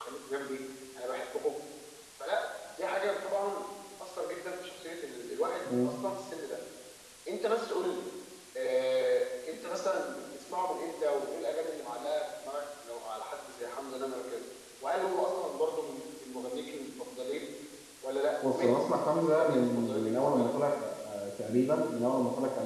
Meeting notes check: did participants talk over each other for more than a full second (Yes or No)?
Yes